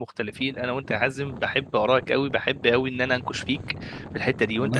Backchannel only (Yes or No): No